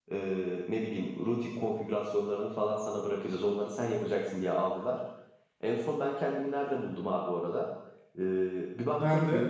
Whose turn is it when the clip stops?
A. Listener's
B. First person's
B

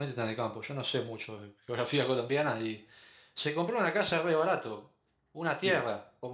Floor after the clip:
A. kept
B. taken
A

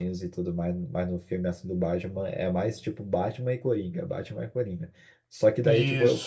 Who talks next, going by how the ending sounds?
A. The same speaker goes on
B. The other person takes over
A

